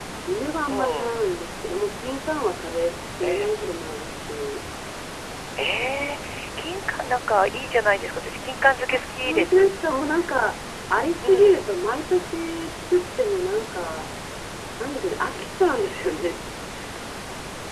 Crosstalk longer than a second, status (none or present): none